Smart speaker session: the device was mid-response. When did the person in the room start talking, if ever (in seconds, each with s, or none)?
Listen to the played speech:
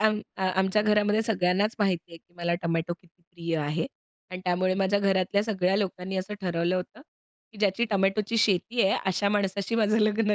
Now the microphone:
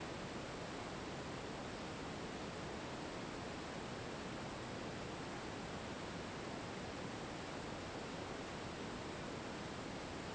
none